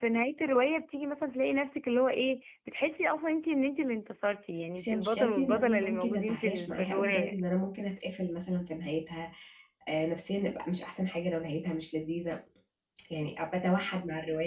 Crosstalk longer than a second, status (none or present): present